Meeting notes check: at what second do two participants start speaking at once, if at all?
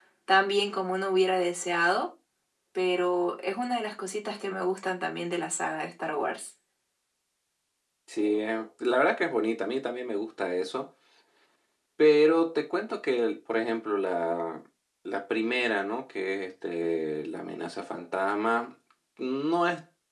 none

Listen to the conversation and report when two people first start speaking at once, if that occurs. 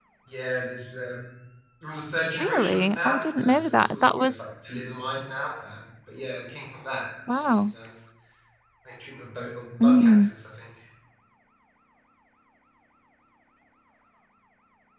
2.4 s

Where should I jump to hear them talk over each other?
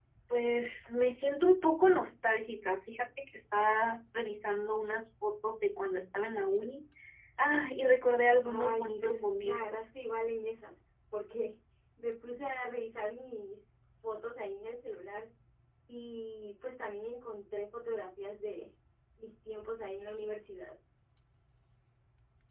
8.4 s

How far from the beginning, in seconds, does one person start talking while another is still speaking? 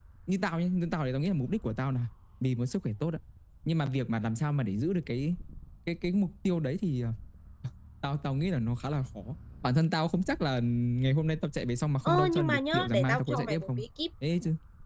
12.0 s

